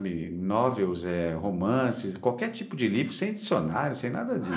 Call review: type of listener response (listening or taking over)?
taking over